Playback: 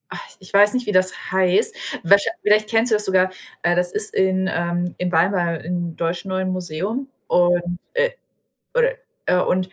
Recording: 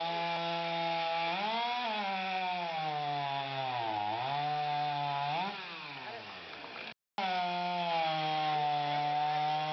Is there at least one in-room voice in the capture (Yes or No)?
No